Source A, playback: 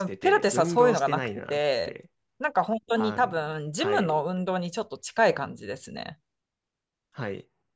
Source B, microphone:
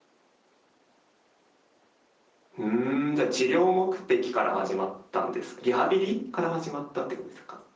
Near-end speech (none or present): present